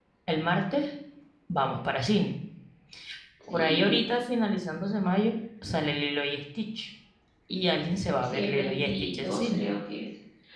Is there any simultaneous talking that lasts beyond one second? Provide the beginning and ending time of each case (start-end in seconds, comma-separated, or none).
8.2-9.6